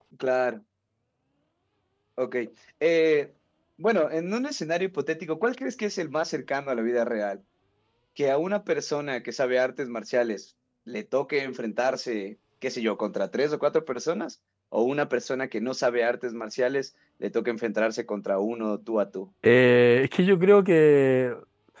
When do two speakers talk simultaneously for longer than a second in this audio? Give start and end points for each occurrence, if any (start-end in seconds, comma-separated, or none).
none